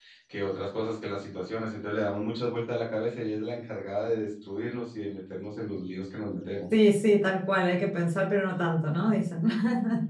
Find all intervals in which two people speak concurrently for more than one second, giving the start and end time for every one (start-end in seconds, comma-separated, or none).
none